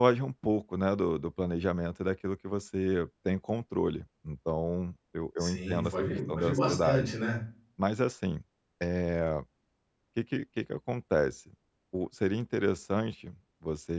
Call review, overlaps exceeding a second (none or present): present